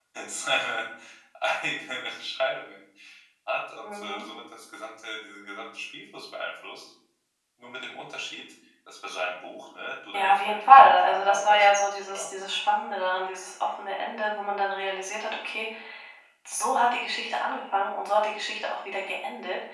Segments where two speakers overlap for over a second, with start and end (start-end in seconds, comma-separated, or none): 10.1-12.3